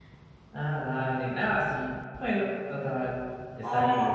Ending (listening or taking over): taking over